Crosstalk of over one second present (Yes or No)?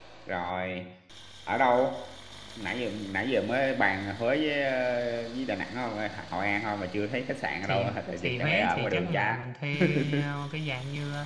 Yes